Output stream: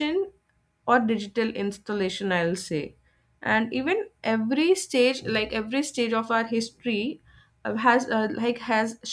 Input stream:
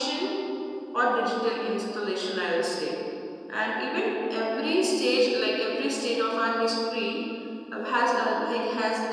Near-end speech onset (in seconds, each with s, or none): none